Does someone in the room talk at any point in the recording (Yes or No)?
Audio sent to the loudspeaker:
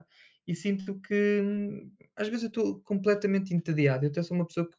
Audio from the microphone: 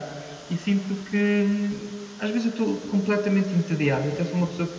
No